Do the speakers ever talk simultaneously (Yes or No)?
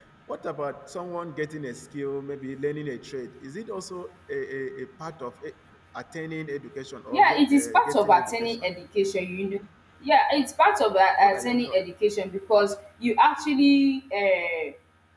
Yes